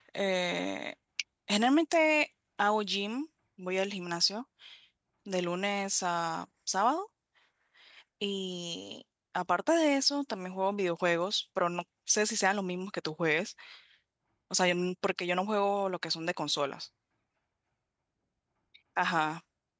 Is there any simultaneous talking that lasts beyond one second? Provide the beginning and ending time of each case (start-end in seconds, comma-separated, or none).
none